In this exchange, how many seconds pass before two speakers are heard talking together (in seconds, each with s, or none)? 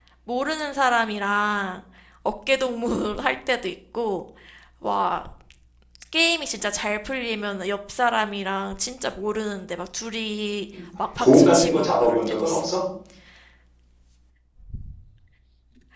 11.2 s